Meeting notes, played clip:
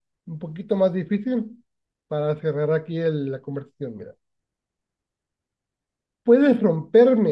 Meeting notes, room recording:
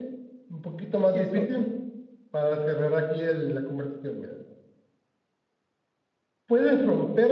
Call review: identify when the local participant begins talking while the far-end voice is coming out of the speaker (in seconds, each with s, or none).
1.1 s